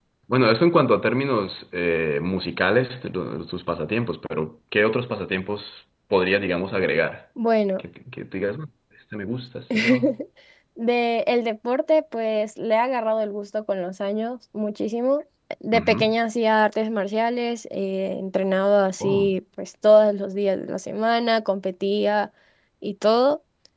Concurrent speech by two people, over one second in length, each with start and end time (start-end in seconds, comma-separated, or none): none